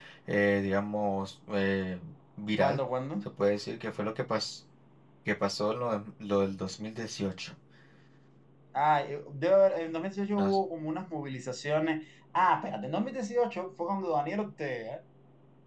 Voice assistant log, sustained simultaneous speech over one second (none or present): none